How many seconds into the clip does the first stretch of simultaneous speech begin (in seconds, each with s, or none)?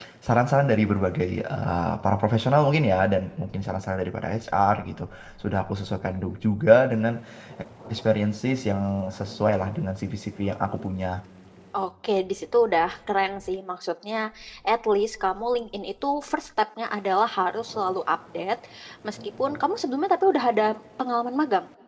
none